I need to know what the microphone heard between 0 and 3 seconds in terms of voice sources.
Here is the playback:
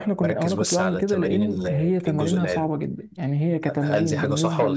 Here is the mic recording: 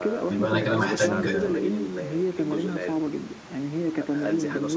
both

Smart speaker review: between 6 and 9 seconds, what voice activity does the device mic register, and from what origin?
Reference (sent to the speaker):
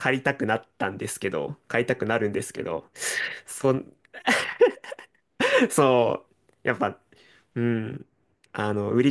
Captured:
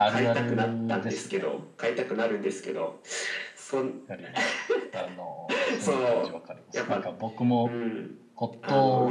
both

